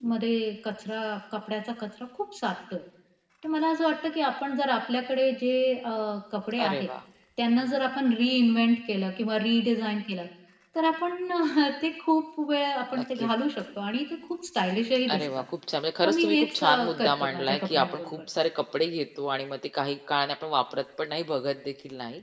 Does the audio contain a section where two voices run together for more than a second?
Yes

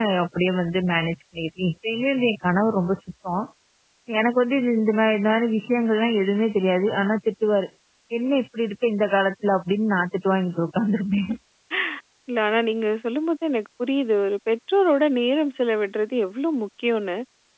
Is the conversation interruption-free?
Yes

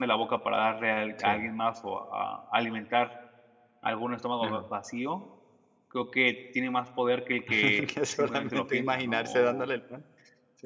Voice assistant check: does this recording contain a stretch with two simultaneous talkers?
Yes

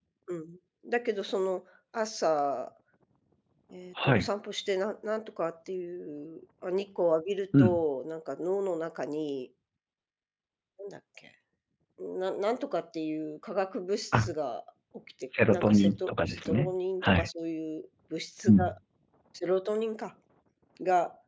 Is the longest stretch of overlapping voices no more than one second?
No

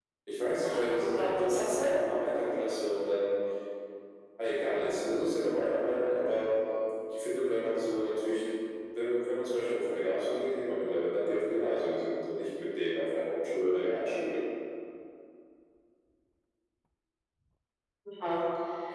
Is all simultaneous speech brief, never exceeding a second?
No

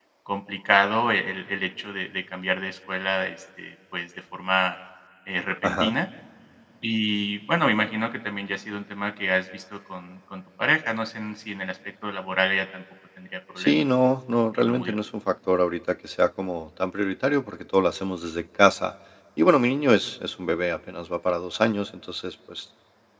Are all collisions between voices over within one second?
Yes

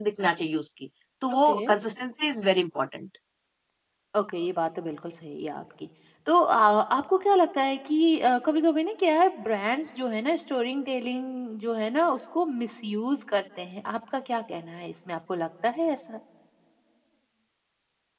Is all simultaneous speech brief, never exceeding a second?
Yes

